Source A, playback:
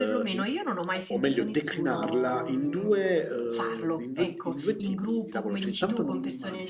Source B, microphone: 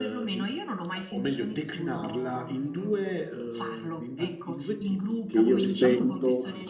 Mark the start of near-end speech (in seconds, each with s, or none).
5.2 s